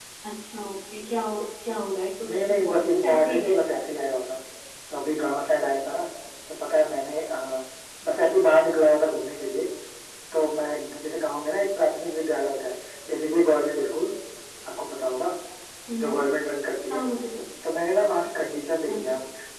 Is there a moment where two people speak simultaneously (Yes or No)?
Yes